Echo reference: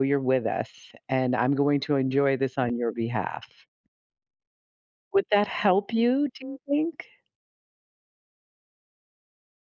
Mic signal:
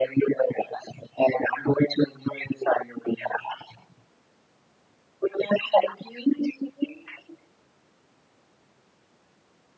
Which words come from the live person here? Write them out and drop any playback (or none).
none